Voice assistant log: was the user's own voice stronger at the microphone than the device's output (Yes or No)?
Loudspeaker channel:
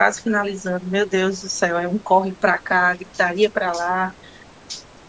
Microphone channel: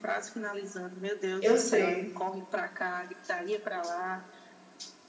Yes